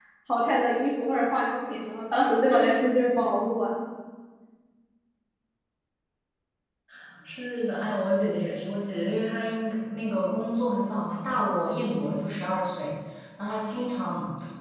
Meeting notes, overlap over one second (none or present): none